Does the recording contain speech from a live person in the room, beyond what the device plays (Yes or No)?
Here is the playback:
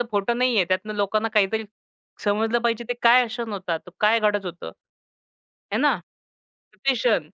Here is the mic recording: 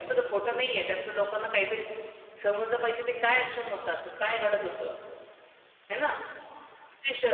No